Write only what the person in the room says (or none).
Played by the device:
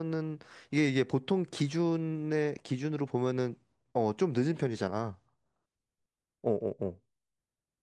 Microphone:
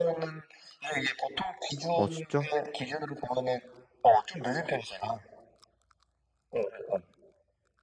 어, 진짜?